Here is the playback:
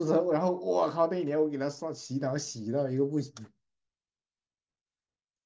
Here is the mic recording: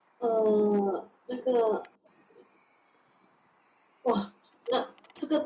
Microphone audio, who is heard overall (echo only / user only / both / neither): user only